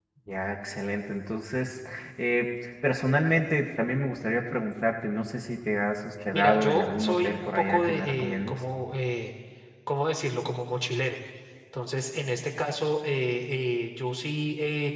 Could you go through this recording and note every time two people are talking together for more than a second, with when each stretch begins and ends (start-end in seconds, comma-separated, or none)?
6.3-8.6